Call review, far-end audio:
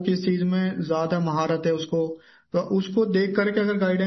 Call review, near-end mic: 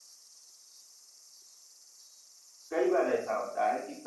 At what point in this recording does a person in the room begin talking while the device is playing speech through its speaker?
3 s

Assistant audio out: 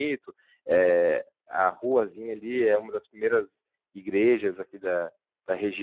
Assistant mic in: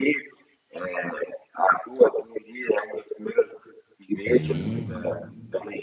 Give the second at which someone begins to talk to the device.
4 s

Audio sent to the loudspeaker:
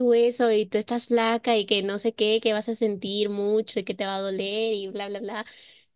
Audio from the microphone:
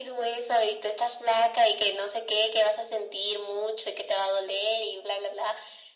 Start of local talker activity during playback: none

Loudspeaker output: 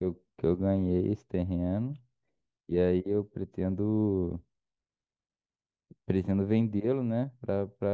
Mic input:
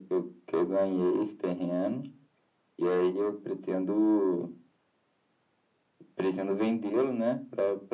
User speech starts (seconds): none

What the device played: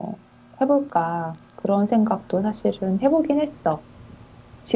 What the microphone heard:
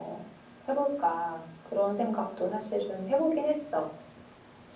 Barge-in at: none

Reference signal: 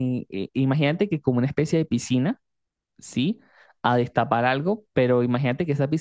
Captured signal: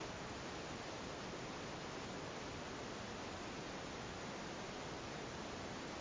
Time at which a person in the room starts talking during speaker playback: none

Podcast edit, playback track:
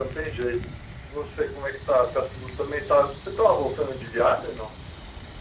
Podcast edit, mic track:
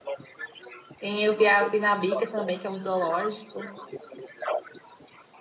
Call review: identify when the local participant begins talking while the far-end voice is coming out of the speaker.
1 s

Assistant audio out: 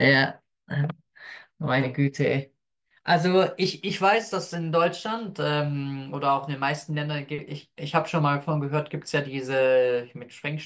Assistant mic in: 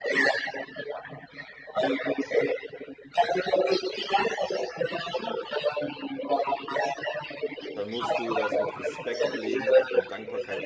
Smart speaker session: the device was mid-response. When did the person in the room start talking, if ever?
8 s

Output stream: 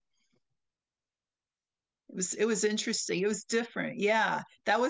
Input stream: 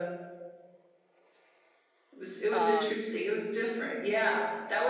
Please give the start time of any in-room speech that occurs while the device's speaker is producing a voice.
2 s

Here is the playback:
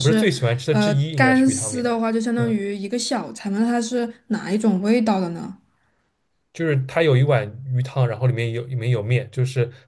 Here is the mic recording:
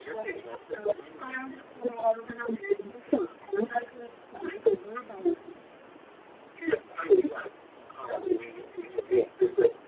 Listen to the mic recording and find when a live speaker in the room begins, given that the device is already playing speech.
none

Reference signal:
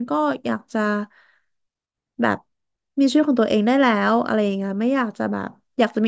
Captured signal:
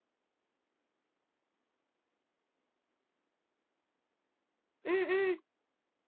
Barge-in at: 5 s

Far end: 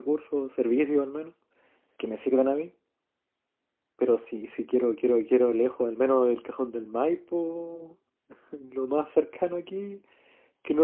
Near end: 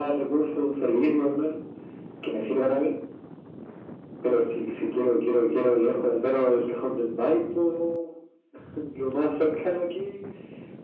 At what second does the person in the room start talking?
none

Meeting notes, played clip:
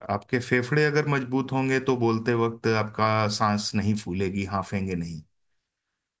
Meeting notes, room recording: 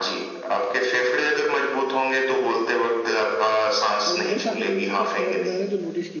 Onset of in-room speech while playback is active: 4 s

